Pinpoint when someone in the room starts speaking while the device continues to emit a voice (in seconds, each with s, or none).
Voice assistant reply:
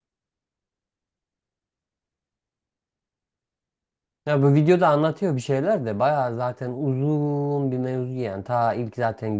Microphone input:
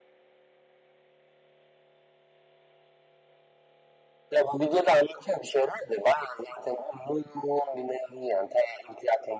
none